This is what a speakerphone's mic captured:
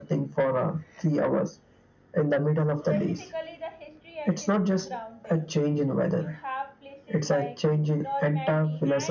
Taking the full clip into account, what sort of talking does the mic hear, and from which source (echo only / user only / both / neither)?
both